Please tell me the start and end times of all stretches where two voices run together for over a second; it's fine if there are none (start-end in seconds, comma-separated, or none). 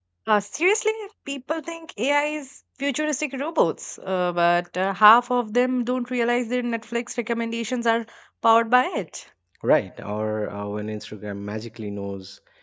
none